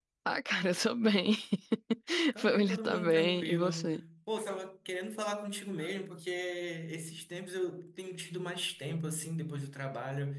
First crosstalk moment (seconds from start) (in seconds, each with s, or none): 2.4 s